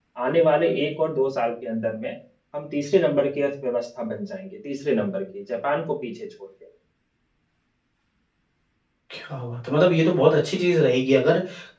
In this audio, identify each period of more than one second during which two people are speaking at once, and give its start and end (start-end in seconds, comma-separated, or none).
none